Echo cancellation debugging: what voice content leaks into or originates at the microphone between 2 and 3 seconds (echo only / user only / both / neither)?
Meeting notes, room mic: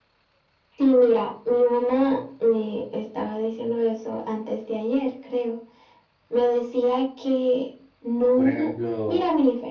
echo only